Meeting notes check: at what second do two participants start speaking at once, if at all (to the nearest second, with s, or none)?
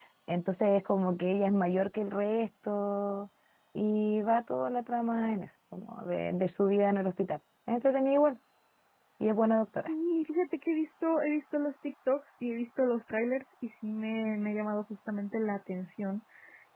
none